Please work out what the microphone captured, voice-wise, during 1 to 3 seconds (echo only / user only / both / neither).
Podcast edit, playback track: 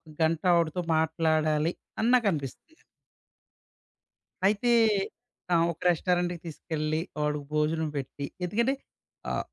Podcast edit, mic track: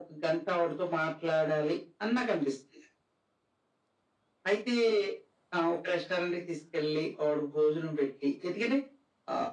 echo only